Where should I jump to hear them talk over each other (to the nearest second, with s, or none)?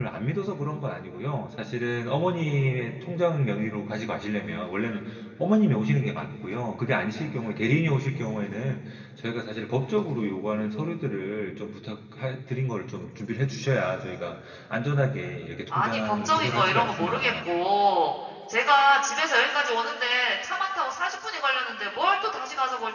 16 s